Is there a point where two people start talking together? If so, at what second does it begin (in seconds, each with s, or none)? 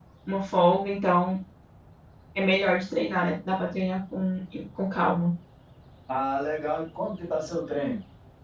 none